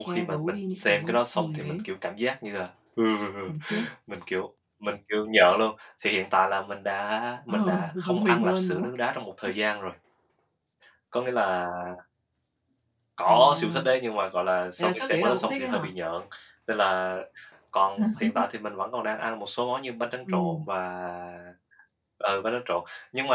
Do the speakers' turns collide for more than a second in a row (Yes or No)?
Yes